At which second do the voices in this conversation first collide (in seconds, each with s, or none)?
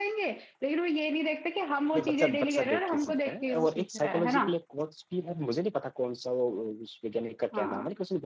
1.9 s